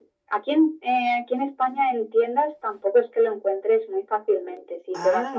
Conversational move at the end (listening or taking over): listening